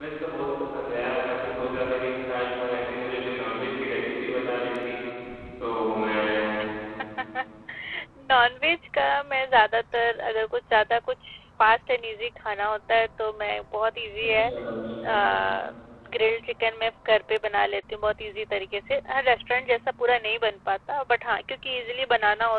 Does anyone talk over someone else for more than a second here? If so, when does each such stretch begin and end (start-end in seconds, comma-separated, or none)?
none